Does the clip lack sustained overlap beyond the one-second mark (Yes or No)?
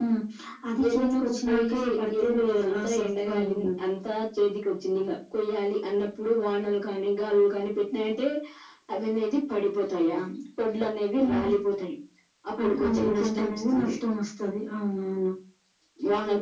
No